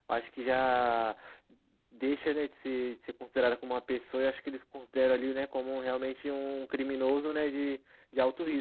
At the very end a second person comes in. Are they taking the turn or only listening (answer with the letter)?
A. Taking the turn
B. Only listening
A